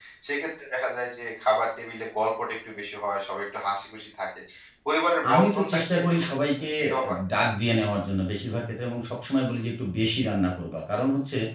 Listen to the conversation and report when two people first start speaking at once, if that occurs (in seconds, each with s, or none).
5.3 s